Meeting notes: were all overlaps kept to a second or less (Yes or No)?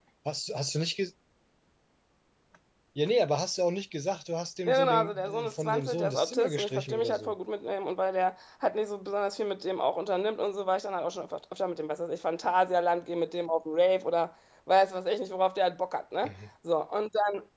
No